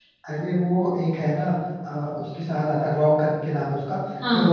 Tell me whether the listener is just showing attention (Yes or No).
Yes